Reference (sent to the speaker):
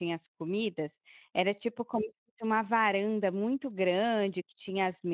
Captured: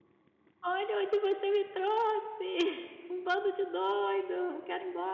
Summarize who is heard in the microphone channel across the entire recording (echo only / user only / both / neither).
user only